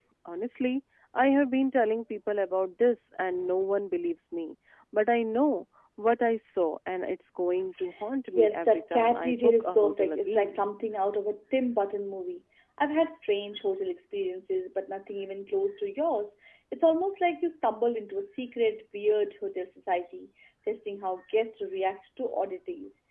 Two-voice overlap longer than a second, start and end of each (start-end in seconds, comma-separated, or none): 8.3-10.6